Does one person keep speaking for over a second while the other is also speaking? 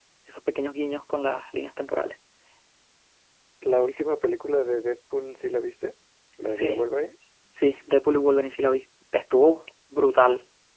No

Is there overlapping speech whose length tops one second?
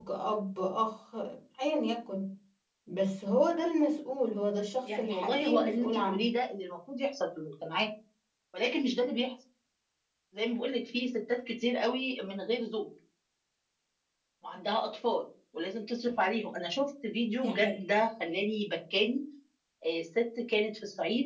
Yes, from 4.8 s

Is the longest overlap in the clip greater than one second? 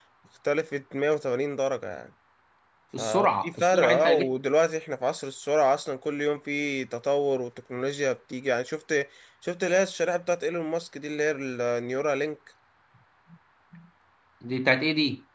Yes, from 3.0 s

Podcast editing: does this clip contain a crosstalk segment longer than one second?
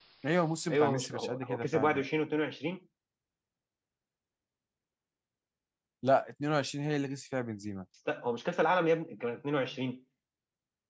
Yes, from 0.7 s

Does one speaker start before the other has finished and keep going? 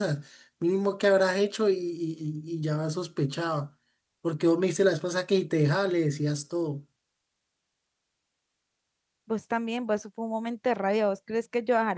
No

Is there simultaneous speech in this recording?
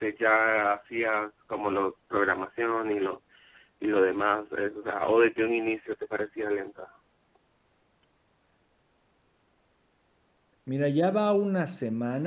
No

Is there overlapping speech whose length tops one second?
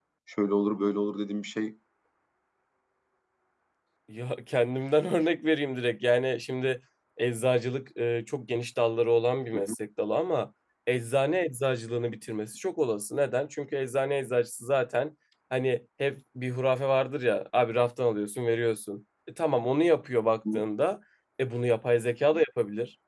No

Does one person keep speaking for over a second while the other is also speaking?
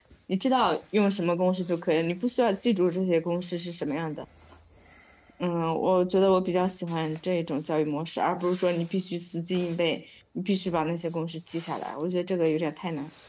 No

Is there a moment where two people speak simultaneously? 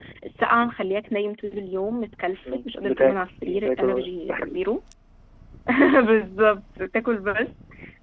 Yes, from 2.5 s

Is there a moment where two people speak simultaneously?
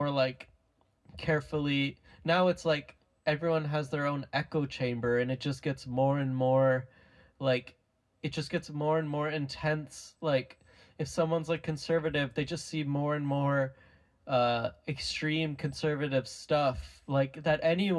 No

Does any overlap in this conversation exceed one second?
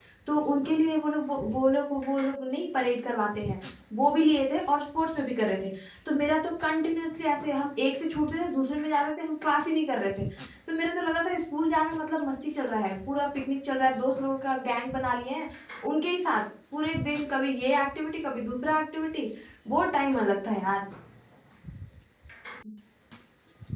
No

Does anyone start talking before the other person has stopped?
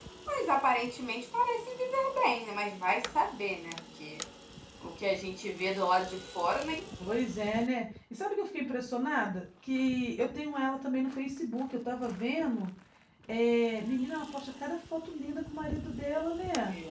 No

